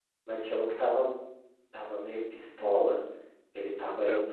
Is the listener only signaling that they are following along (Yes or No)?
Yes